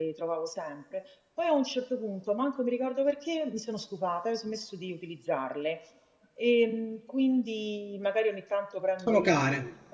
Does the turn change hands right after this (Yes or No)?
No